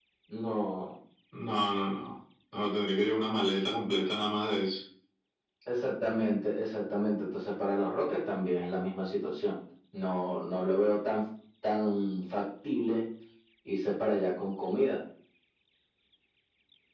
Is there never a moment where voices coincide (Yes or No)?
Yes